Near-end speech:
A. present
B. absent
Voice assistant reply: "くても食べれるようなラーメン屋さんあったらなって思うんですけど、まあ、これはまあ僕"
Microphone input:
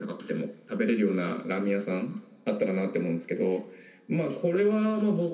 B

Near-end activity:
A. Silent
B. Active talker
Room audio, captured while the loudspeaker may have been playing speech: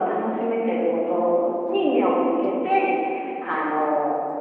A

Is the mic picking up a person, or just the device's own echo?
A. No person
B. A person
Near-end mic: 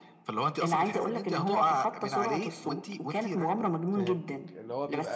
B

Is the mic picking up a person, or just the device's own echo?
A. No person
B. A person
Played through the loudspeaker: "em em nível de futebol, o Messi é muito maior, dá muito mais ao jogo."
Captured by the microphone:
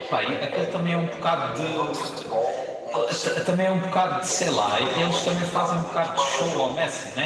B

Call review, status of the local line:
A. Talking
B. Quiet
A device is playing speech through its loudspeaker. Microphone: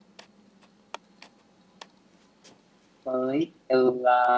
A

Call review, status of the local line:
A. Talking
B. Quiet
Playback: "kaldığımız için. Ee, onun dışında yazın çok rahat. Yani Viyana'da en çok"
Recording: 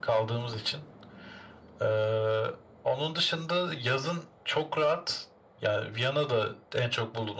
B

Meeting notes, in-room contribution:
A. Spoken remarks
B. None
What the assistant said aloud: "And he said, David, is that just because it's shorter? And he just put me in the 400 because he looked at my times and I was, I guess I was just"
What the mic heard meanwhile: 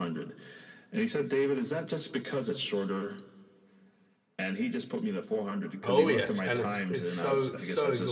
A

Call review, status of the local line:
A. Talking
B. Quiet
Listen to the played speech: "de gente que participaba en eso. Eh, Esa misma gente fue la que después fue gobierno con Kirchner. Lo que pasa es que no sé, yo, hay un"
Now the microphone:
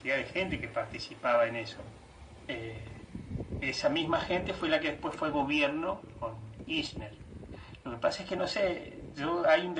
B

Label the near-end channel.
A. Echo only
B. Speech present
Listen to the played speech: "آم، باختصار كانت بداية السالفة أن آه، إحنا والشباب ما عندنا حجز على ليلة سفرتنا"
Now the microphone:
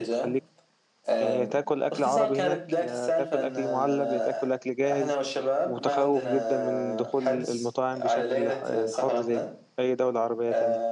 B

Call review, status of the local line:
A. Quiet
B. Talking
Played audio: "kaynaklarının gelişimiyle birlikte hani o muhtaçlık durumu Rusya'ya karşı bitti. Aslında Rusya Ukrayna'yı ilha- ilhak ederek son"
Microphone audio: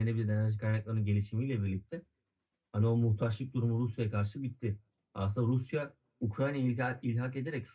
A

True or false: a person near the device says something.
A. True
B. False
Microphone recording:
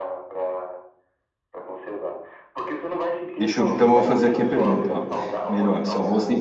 A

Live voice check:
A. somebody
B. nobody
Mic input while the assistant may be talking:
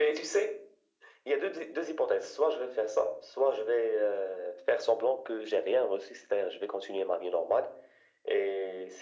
B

